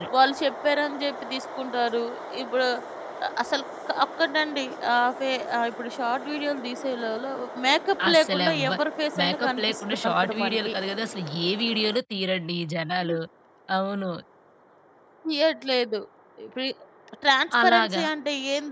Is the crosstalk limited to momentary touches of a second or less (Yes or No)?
No